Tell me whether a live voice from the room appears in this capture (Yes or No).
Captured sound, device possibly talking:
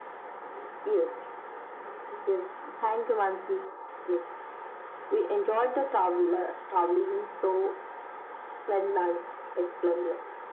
No